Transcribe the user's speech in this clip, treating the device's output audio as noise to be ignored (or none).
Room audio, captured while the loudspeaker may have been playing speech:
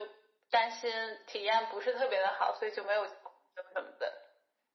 none